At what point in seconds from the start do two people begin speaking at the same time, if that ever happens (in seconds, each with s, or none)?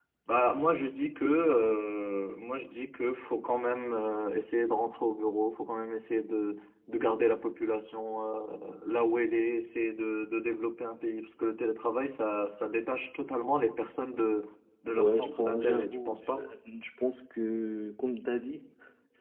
14.9 s